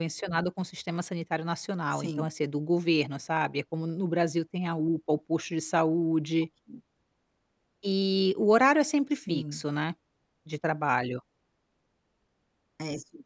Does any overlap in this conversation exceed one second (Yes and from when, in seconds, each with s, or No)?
No